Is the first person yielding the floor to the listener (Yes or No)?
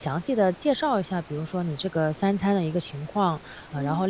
No